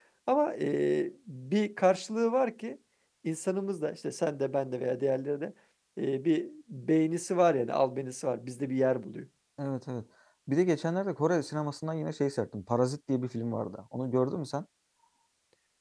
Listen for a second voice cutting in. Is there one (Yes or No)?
No